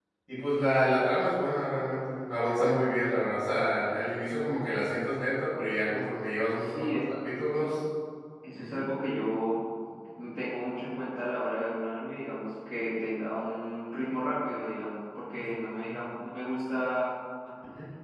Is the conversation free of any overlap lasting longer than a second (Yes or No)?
Yes